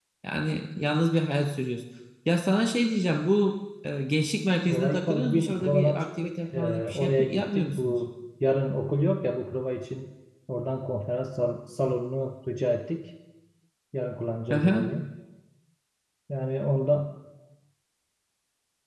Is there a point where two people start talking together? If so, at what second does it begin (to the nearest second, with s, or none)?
5 s